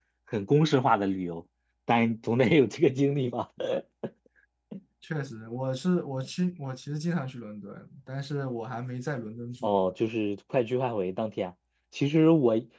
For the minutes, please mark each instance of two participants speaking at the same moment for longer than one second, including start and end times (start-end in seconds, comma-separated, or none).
none